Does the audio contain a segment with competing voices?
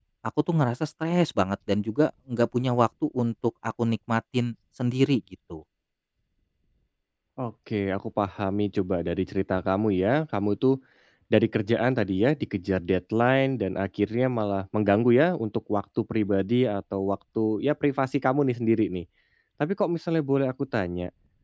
No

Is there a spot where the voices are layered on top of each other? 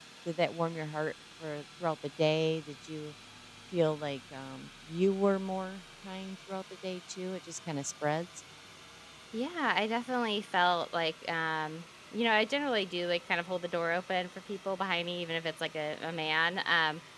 No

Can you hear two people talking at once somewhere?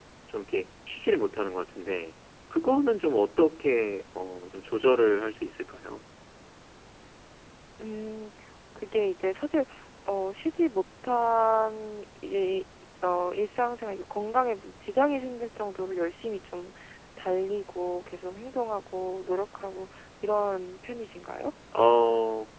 No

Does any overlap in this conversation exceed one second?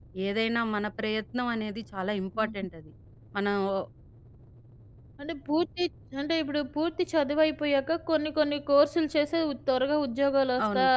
No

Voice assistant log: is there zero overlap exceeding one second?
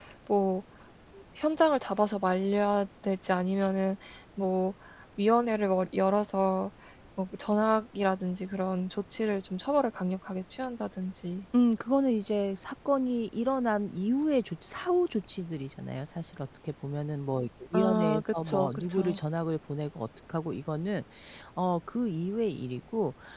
No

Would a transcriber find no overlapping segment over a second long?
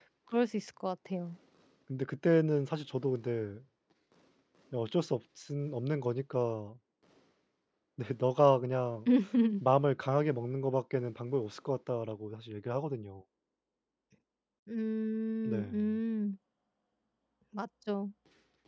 Yes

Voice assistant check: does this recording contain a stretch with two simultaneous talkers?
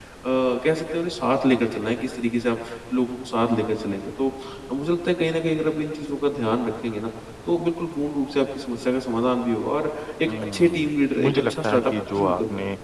Yes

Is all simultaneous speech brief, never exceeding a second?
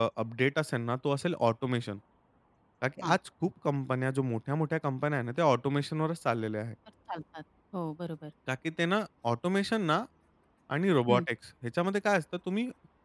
Yes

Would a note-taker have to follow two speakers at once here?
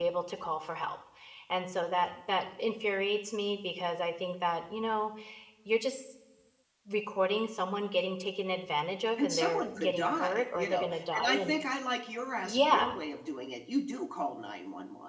Yes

